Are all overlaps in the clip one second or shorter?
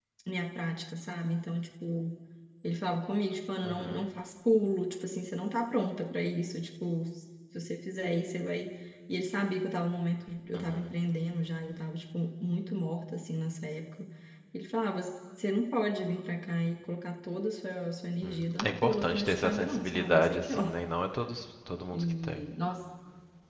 No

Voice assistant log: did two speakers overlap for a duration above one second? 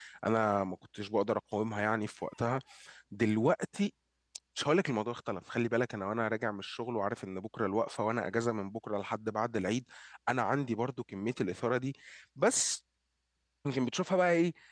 No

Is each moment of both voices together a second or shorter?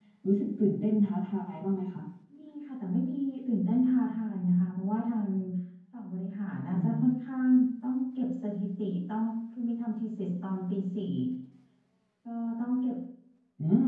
Yes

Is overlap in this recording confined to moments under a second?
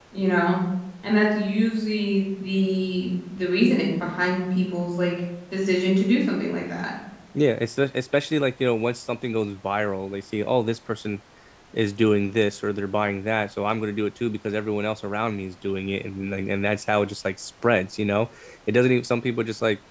Yes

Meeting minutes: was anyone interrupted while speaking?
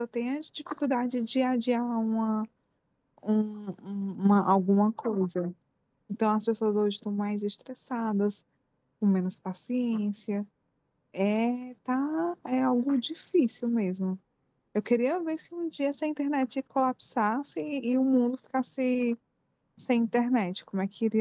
No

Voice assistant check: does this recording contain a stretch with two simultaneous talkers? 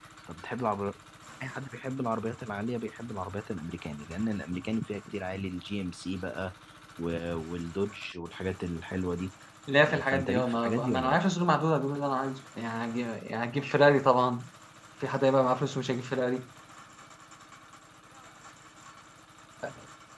Yes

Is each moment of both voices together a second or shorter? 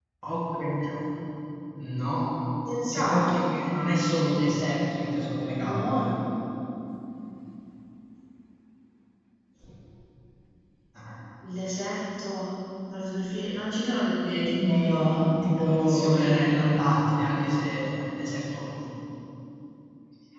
No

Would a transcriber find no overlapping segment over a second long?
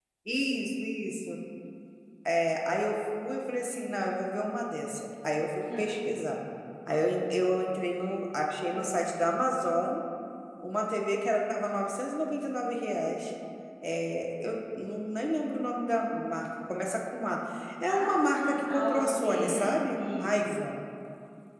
No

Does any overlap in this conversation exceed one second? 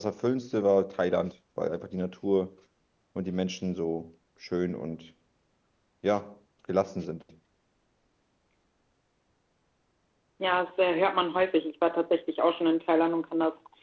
No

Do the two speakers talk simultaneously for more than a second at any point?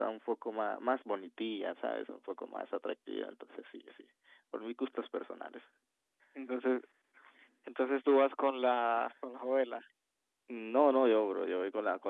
No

